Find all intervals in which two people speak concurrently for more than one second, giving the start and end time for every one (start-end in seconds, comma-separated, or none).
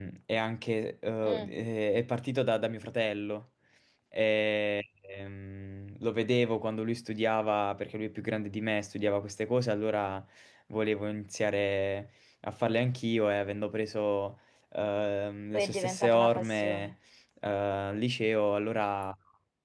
15.5-16.9